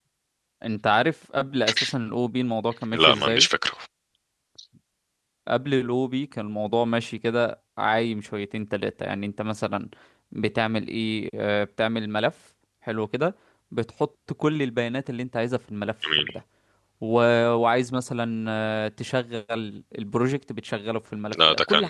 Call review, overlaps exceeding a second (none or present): none